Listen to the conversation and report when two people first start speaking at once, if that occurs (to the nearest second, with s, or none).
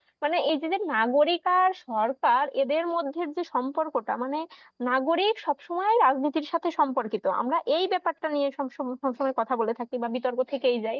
none